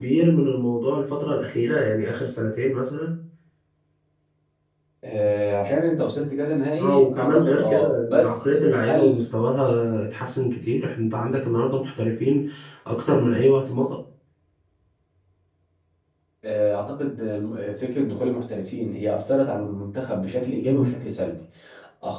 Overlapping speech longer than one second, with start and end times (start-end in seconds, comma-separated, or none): 6.8-9.3